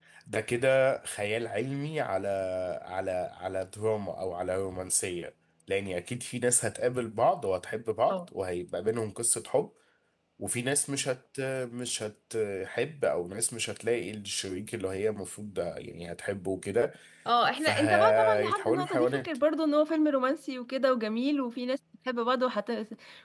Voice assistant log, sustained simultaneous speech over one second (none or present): present